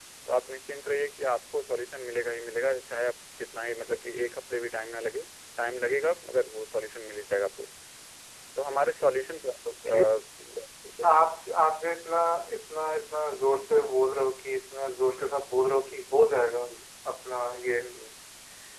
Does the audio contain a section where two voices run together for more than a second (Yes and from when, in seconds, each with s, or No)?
No